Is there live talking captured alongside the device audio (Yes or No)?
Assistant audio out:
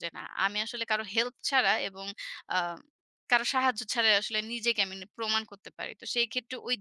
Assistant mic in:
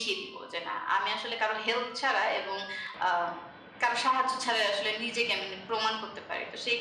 No